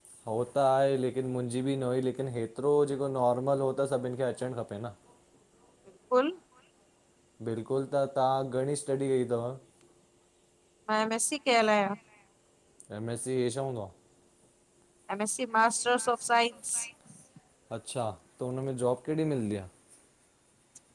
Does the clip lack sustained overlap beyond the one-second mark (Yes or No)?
Yes